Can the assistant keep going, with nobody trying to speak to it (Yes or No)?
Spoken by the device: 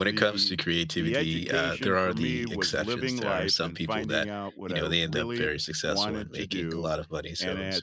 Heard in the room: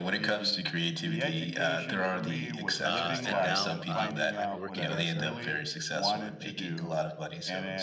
No